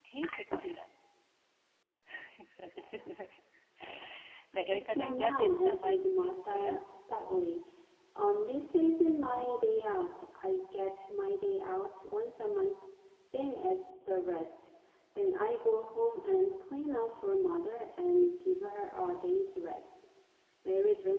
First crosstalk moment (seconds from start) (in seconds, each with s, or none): 4.7 s